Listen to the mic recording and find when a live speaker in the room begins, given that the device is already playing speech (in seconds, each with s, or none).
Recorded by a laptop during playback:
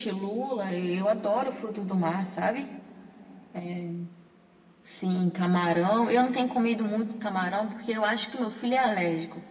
none